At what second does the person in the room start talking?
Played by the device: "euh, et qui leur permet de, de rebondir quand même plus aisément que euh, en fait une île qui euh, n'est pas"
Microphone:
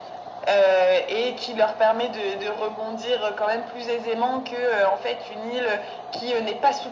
none

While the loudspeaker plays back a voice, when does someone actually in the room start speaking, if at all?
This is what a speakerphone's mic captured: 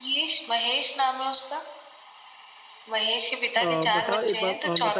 4 s

